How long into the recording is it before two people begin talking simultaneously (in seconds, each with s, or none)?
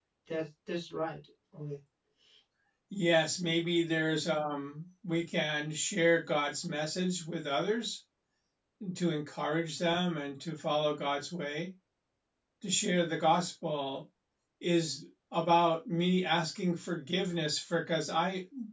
none